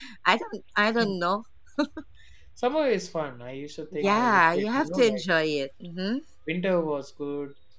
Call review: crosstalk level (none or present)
present